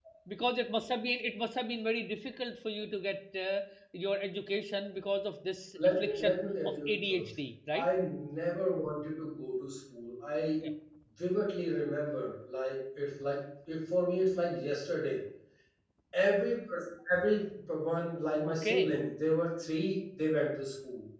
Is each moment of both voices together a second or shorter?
No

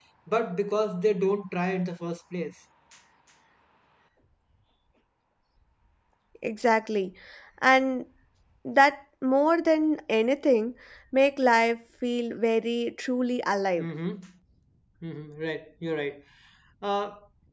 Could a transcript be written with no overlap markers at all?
Yes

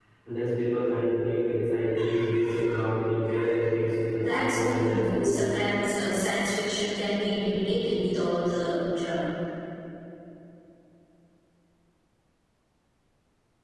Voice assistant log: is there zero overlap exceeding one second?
No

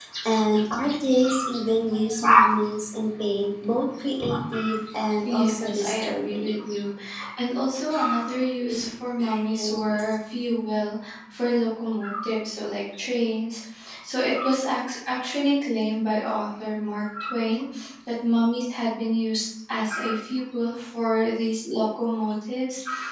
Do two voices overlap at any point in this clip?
Yes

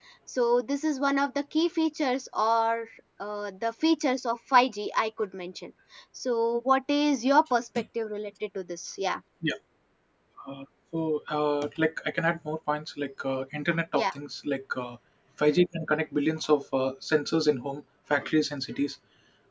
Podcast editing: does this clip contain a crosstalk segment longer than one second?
No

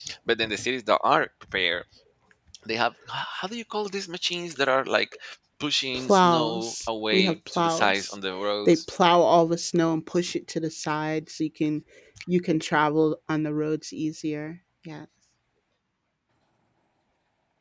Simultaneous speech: Yes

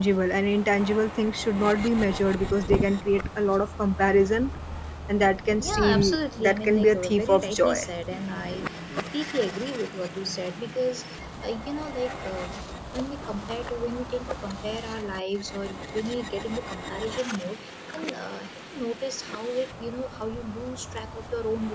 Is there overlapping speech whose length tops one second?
Yes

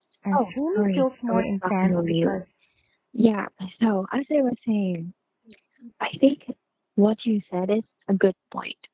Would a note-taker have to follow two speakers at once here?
Yes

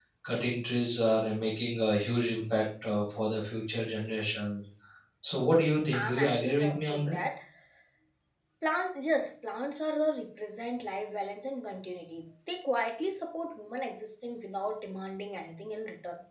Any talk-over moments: Yes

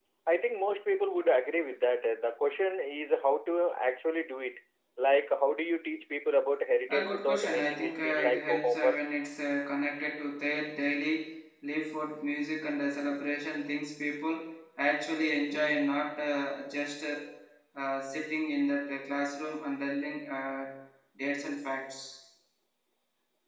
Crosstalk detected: Yes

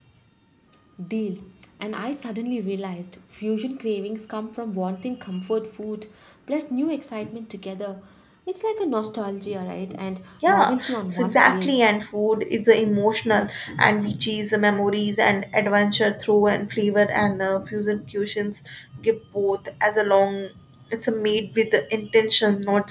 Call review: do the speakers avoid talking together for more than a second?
No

